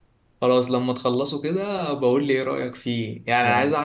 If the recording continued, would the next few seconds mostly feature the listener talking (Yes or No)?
No